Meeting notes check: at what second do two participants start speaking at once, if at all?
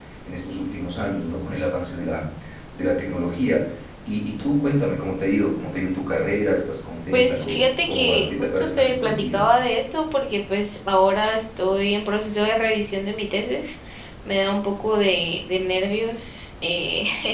7 s

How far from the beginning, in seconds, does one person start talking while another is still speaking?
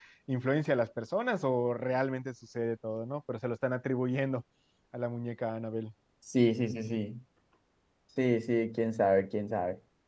none

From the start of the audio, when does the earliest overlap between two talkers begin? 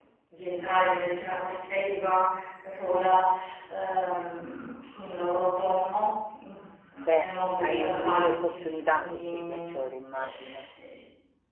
7 s

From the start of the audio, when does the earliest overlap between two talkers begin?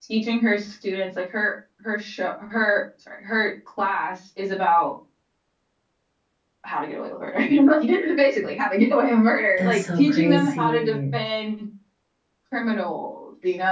10 s

